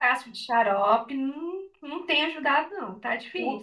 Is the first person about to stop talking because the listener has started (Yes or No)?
Yes